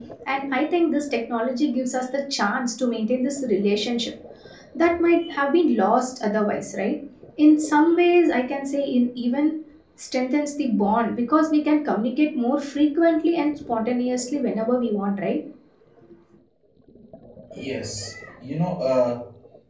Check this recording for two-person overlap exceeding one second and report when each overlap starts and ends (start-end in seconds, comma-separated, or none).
none